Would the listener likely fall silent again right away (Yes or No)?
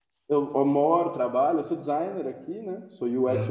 Yes